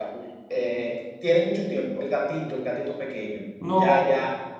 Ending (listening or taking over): taking over